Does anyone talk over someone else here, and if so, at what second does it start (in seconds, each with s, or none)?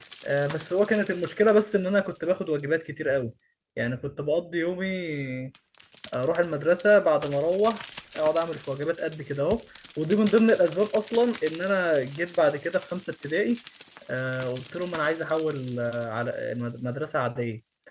none